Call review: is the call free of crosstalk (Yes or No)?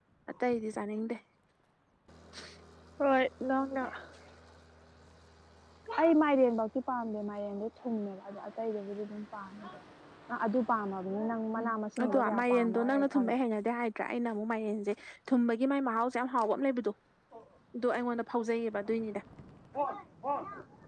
No